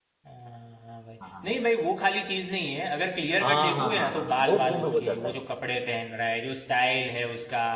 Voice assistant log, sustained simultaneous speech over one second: present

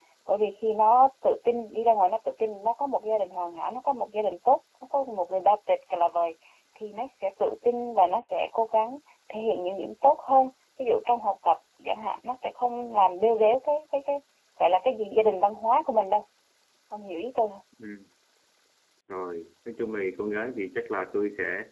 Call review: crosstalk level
none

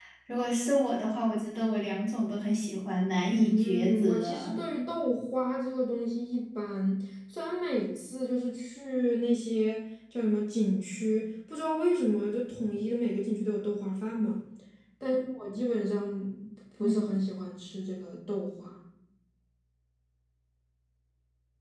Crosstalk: present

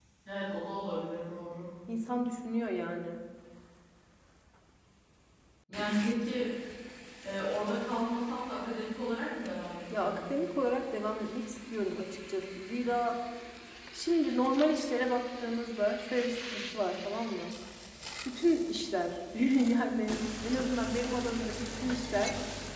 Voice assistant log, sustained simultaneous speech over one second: none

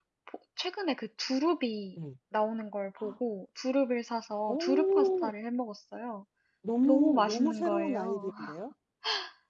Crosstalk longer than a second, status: present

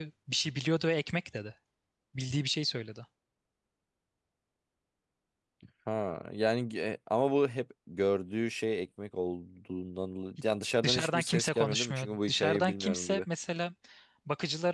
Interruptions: present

